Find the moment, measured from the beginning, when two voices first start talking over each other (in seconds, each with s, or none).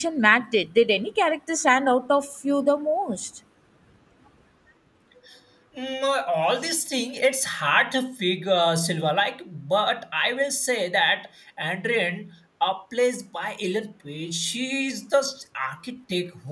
none